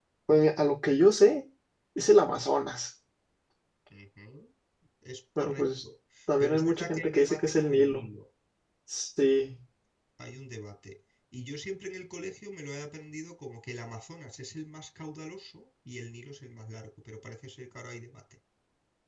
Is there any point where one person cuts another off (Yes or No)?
Yes